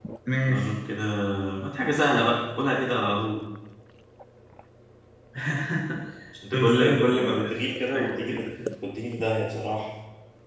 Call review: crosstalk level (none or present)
present